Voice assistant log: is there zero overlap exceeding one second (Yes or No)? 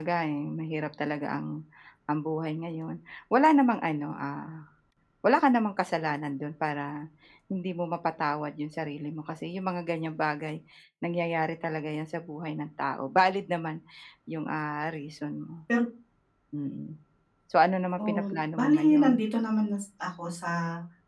No